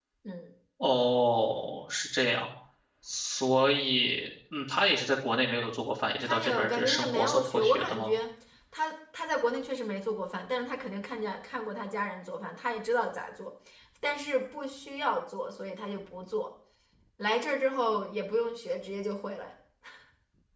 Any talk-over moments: Yes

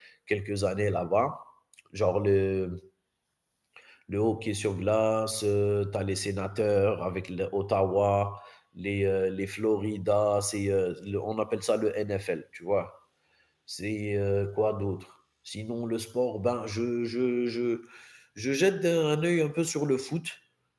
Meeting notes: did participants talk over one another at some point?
No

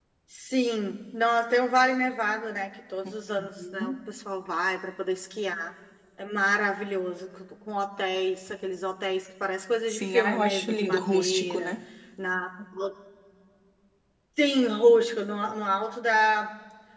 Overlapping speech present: Yes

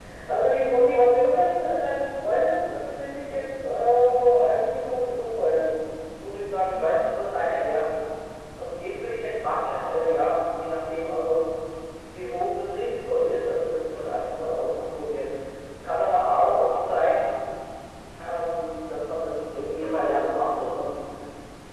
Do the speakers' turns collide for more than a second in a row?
No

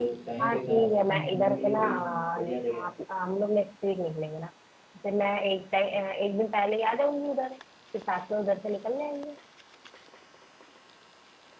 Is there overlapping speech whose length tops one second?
Yes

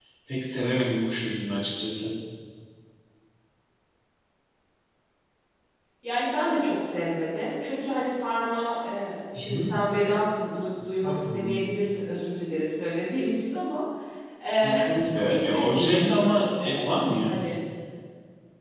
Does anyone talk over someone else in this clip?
Yes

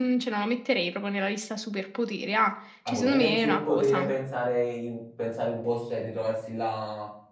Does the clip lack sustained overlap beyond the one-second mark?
No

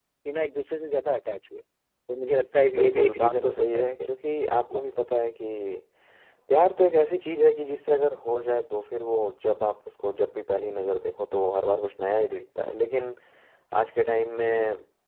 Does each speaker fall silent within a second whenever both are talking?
No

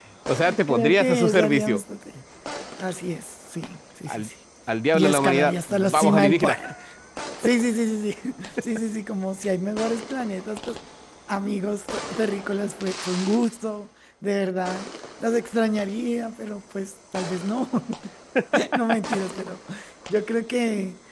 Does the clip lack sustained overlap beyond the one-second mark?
No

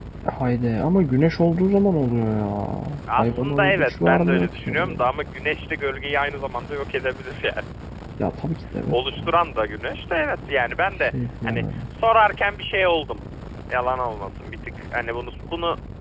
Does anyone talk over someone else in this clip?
Yes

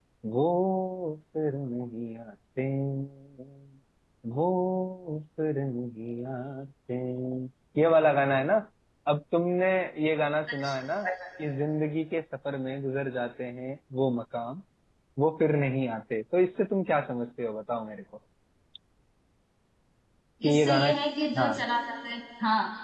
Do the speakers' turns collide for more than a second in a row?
No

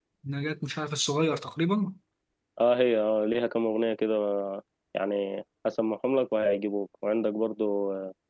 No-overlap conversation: Yes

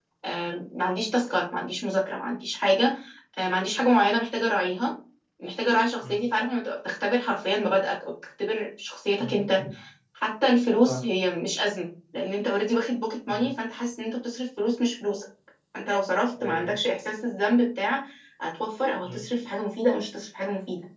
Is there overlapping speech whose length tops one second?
No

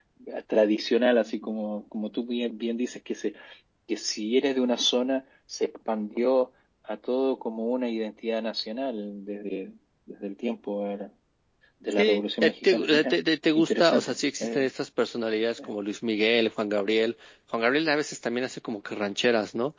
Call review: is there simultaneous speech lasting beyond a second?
Yes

